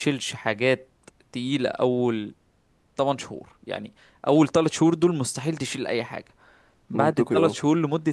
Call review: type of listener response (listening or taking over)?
listening